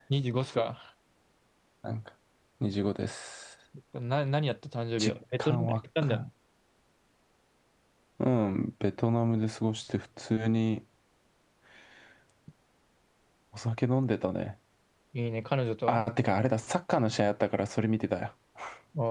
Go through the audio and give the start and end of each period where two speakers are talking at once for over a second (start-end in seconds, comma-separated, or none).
5.0-6.2